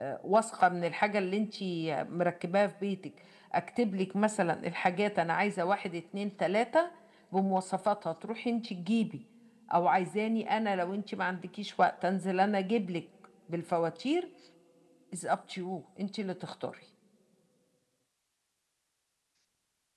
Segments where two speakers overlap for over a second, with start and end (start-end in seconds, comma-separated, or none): none